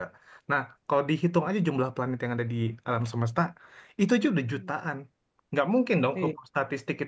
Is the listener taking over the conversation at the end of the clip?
No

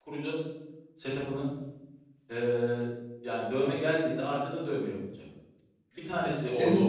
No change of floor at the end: Yes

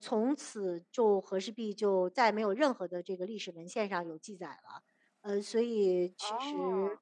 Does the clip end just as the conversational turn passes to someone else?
No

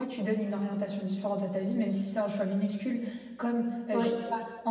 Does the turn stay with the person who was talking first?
Yes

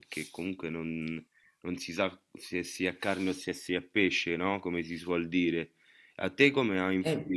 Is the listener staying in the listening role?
Yes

